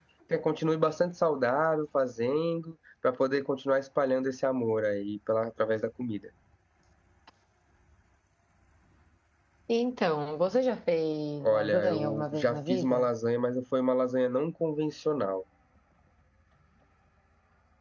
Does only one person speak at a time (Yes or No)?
No